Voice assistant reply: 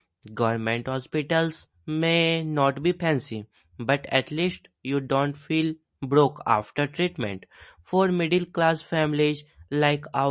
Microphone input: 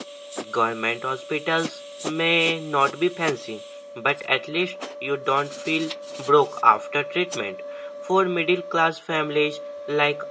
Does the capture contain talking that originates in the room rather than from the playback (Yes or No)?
No